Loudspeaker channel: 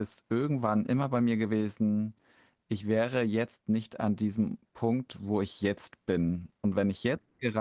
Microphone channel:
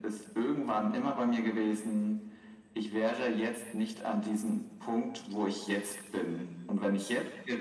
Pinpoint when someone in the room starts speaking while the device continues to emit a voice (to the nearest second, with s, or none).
none